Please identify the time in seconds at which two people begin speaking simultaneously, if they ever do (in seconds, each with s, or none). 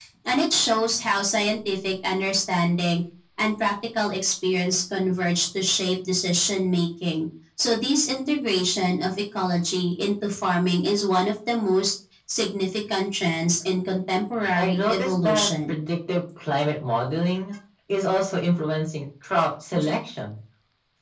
14.6 s